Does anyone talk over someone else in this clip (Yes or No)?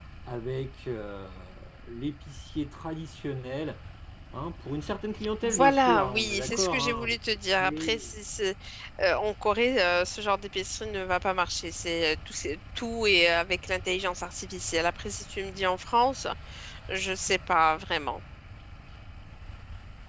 Yes